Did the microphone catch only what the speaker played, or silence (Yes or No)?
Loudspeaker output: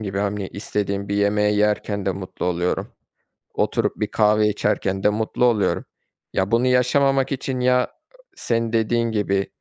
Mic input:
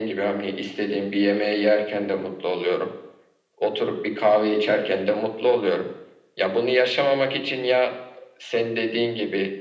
Yes